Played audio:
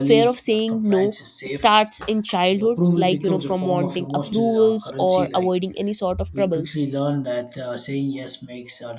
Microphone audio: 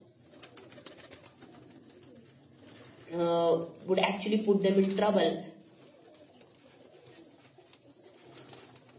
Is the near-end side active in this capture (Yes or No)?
Yes